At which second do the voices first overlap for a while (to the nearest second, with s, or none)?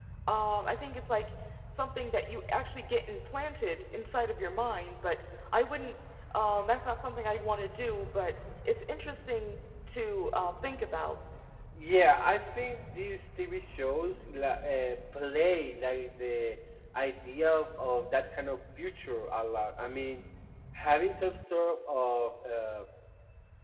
none